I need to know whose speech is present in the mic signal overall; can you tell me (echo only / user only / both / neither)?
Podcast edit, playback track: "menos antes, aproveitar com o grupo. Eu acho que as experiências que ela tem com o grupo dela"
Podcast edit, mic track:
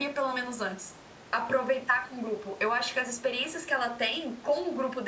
echo only